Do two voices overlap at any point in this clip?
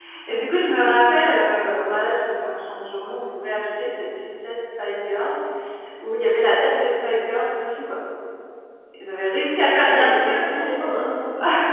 Yes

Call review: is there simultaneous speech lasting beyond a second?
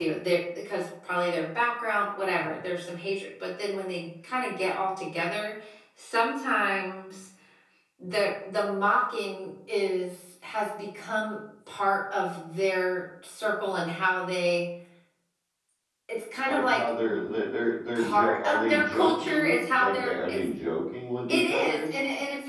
Yes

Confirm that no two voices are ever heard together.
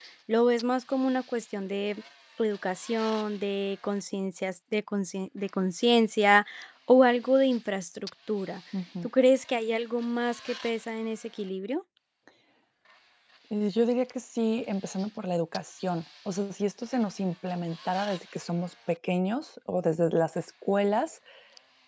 Yes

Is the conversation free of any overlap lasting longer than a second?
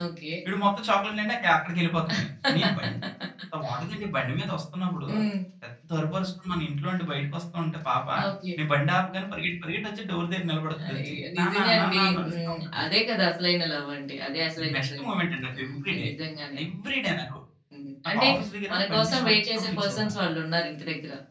No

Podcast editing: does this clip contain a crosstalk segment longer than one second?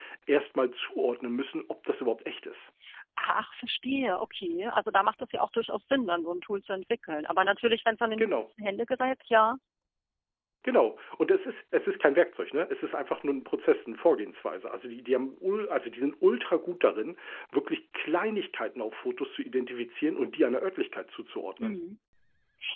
No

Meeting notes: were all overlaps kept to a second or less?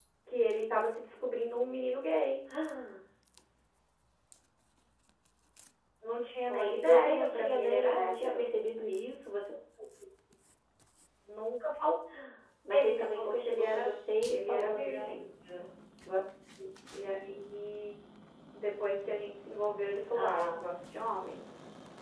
No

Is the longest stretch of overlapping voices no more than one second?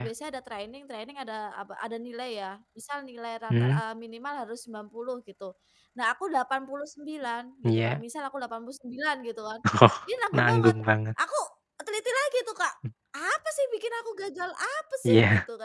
Yes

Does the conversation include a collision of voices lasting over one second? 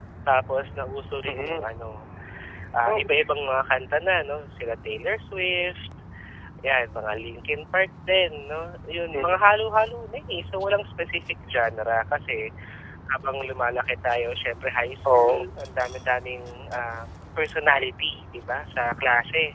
No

